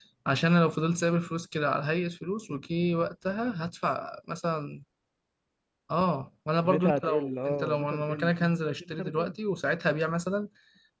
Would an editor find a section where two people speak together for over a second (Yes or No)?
Yes